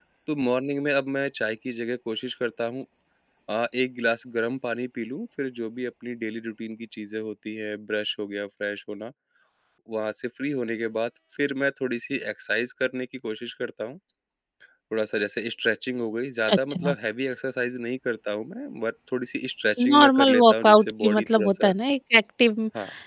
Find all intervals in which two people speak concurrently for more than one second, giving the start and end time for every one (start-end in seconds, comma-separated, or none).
19.8-21.7